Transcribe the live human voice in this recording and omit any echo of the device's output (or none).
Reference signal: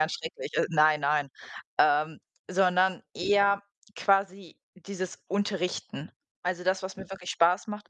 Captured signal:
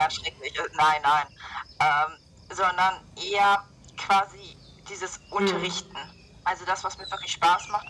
Mhm.